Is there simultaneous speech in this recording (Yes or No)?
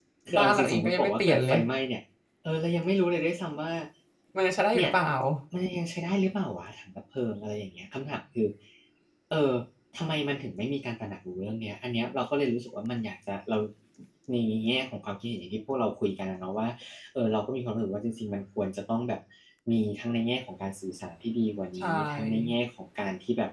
Yes